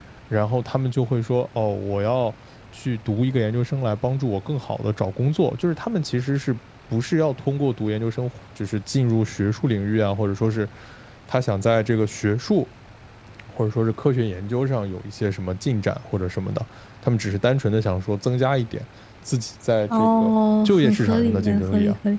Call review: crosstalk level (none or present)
present